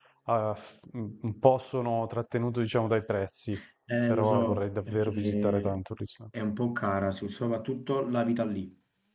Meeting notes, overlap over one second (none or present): present